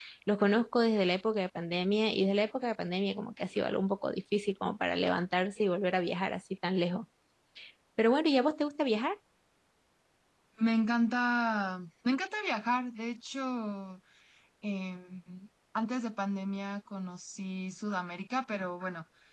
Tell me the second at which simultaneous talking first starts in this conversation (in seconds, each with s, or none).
none